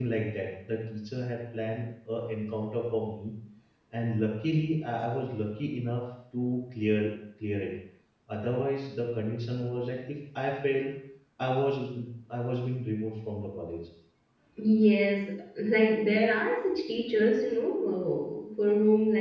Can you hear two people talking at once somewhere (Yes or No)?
No